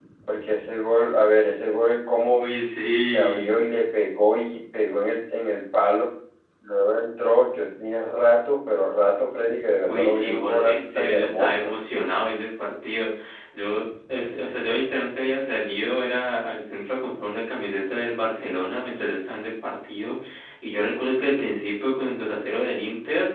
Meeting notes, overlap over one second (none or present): present